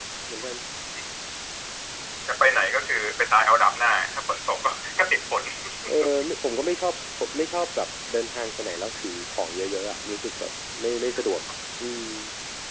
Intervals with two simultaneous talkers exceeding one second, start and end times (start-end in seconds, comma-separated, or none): none